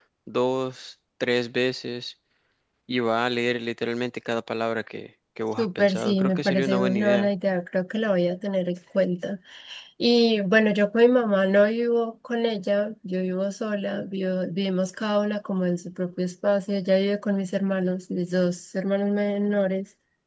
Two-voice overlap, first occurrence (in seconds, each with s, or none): 5.6 s